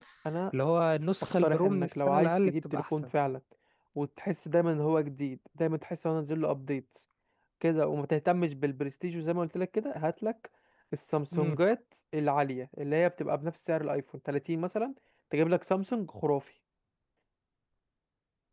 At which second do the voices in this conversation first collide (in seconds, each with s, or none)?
1.4 s